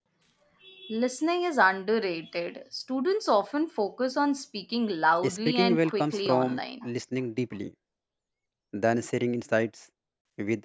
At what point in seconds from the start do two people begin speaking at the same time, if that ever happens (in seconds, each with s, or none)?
5.2 s